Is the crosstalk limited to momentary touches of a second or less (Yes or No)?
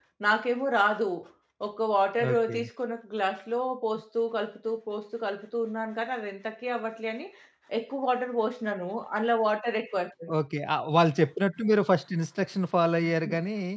Yes